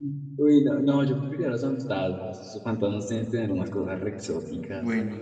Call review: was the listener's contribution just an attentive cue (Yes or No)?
Yes